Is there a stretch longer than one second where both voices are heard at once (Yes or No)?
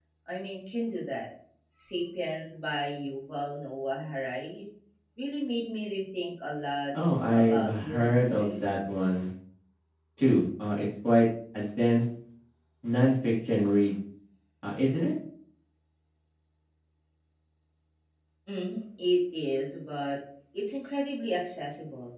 Yes